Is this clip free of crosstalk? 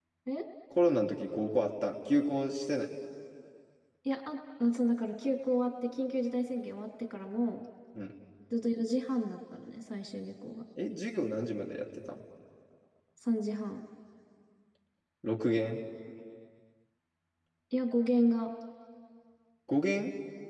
Yes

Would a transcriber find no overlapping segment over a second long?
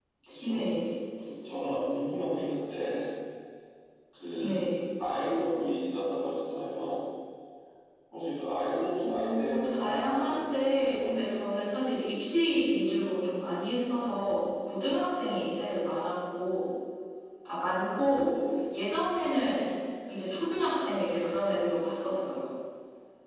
No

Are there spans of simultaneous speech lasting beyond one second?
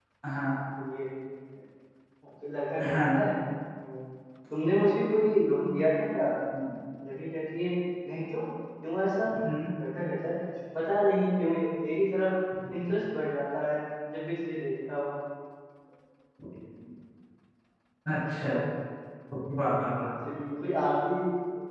No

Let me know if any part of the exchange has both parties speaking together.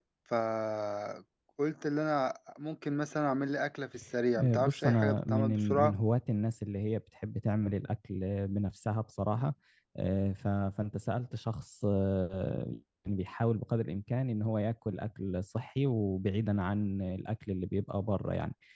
Yes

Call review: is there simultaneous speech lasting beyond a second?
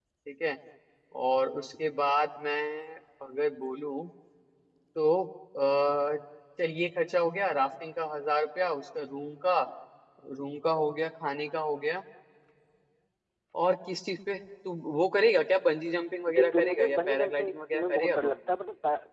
Yes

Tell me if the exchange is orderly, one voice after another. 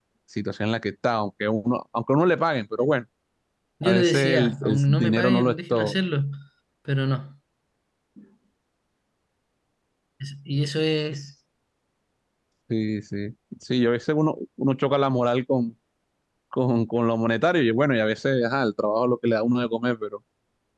No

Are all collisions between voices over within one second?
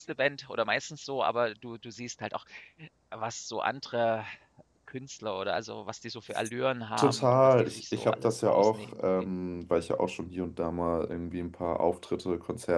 No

